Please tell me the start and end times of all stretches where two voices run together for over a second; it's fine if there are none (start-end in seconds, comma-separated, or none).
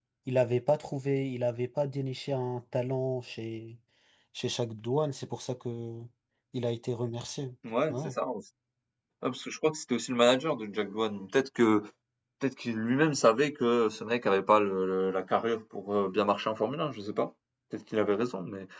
none